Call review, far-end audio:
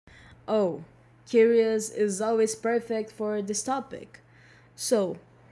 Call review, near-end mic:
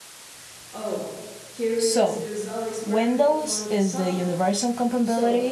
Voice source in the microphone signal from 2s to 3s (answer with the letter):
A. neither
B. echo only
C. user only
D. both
D